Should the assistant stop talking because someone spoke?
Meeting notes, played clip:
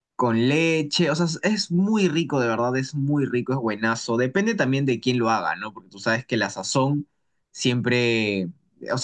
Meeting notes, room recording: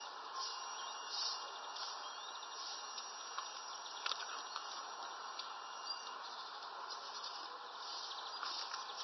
No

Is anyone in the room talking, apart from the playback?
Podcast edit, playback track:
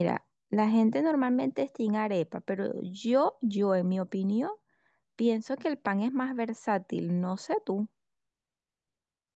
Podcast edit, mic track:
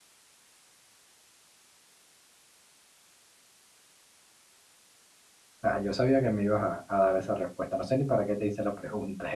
Yes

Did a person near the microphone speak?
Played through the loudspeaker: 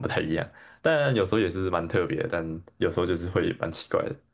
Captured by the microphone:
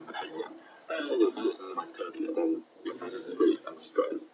Yes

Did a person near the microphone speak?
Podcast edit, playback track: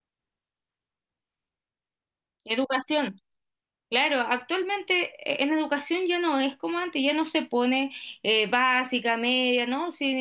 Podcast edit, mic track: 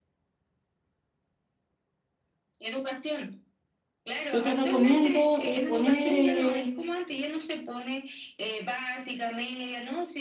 Yes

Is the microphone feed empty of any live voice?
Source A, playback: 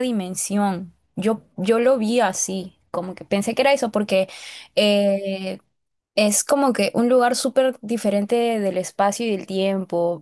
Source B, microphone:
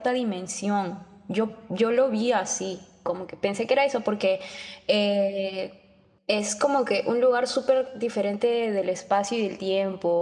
Yes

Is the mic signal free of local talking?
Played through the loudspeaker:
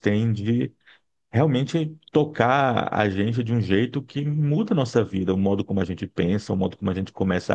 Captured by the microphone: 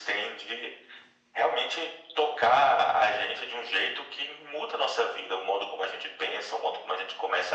Yes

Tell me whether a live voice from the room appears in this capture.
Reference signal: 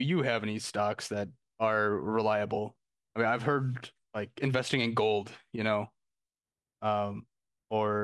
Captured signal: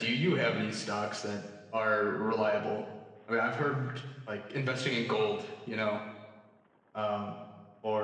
No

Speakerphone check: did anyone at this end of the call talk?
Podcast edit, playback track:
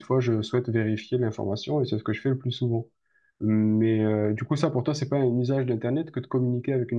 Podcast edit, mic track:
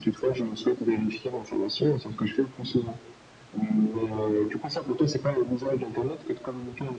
No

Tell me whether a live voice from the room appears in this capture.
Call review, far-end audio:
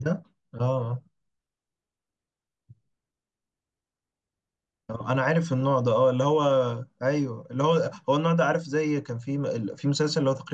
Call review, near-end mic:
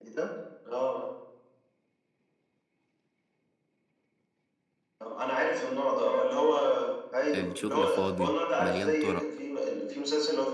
Yes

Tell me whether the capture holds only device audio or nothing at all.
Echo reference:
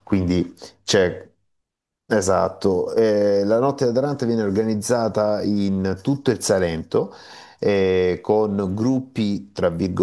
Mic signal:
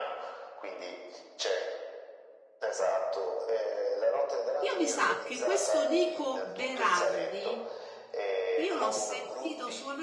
No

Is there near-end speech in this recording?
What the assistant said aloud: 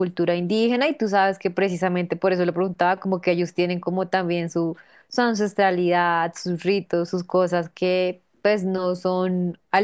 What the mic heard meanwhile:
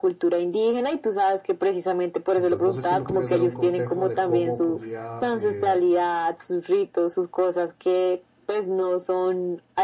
Yes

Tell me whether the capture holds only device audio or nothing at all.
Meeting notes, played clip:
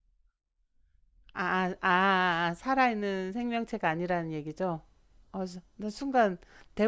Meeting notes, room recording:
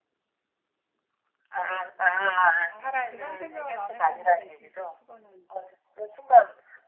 No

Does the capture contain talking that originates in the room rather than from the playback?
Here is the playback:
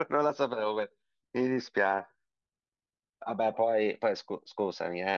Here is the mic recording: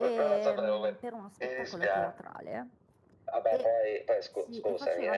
Yes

